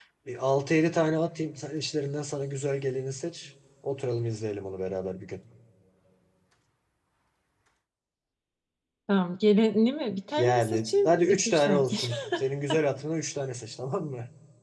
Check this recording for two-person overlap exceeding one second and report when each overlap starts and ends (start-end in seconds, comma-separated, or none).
10.4-12.2